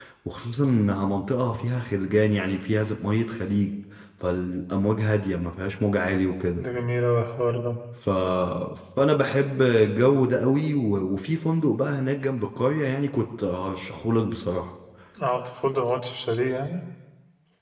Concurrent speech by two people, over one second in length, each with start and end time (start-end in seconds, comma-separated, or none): none